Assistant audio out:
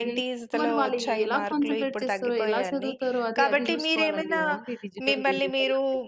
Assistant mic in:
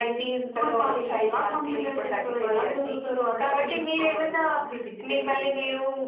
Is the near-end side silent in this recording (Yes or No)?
Yes